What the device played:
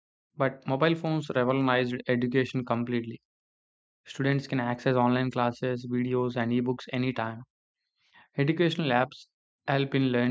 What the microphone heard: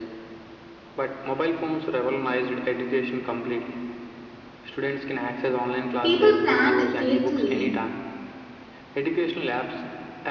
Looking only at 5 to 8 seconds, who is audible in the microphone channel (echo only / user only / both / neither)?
both